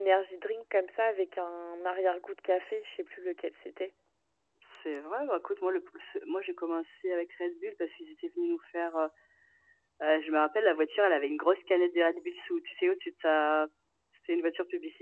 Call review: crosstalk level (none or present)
none